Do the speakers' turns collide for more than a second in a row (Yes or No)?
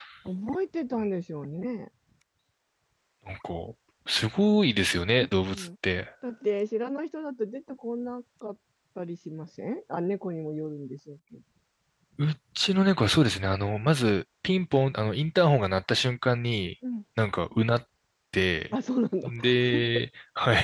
No